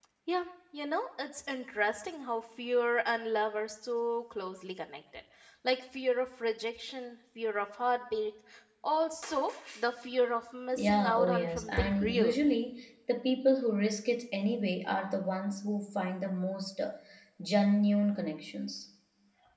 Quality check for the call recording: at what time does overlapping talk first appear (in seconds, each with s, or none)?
10.8 s